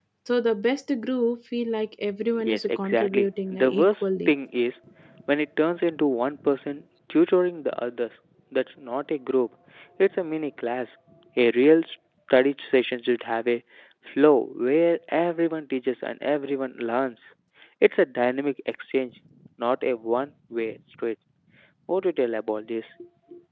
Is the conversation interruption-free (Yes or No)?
No